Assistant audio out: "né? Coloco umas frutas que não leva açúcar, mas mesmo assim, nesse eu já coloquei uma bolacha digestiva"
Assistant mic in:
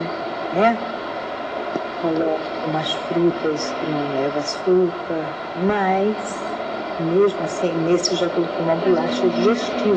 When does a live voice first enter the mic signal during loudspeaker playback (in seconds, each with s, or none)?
8.8 s